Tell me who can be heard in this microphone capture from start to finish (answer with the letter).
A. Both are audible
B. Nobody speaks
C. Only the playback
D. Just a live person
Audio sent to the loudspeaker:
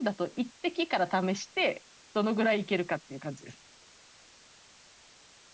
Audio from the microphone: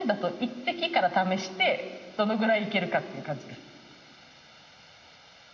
C